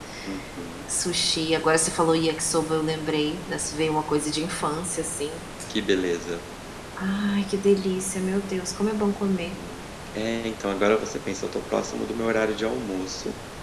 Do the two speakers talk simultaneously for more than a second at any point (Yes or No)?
No